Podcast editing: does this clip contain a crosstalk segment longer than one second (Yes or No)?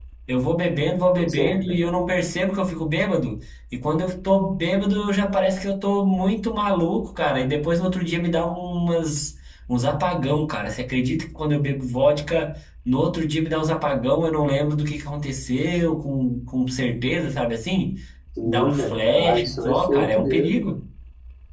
Yes